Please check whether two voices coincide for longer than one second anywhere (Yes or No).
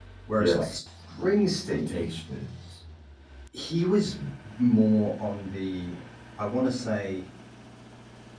No